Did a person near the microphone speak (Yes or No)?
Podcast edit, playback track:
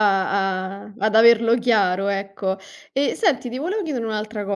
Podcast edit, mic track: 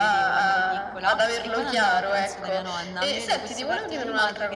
Yes